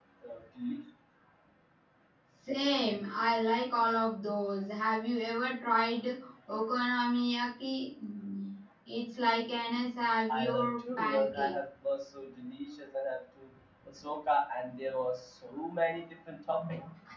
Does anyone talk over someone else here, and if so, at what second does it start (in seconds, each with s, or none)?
10.3 s